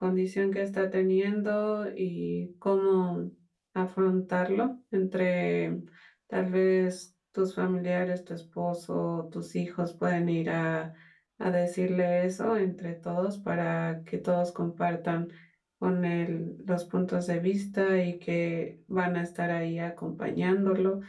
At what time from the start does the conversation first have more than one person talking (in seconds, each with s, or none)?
none